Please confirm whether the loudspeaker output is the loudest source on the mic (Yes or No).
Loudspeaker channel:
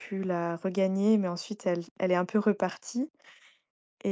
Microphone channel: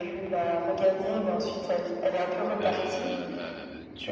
Yes